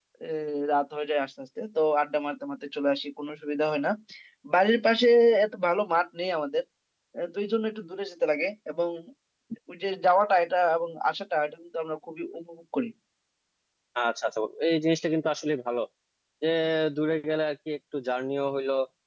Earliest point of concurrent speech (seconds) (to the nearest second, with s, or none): none